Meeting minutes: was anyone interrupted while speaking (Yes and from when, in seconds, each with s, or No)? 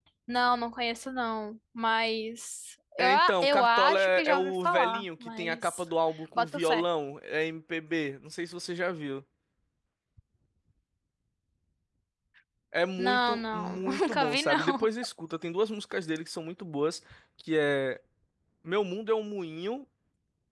Yes, from 3.0 s